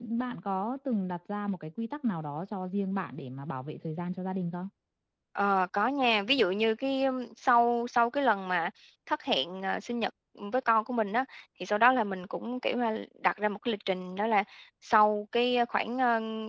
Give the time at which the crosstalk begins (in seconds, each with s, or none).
none